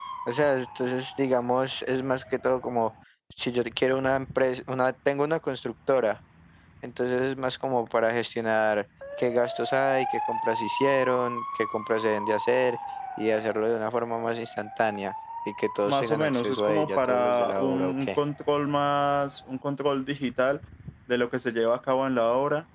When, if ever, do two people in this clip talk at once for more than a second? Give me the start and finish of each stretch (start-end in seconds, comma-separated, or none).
15.8-18.1